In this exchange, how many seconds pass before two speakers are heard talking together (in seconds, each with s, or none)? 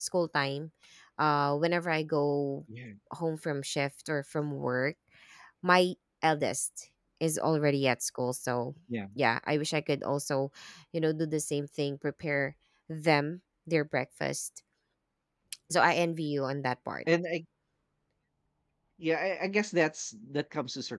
none